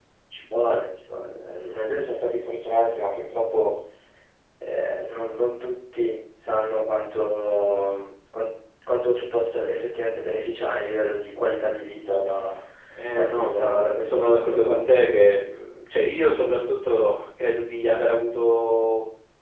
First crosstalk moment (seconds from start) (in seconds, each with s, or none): 13.1 s